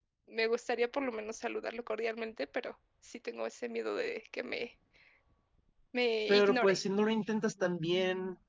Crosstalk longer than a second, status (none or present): none